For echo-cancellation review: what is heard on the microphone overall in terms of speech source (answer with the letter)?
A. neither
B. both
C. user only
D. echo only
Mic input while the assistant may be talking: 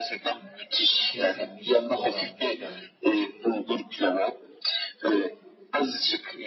B